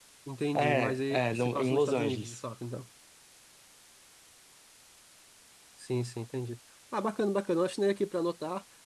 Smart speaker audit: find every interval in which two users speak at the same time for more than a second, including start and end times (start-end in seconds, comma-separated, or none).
0.6-2.4